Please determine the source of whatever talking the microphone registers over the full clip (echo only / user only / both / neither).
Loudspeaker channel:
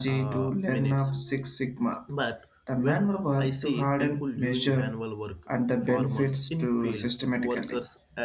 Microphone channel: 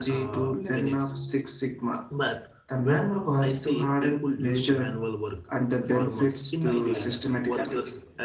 both